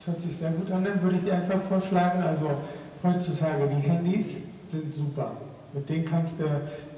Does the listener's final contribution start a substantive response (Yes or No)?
No